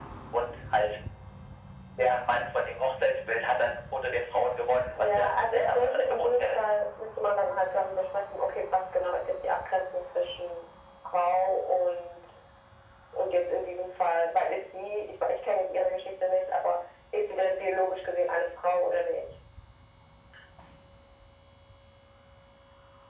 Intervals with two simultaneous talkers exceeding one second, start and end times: 5.0-6.6

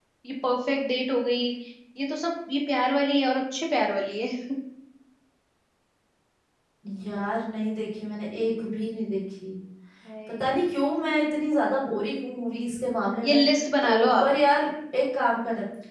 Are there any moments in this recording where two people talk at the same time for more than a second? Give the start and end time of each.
none

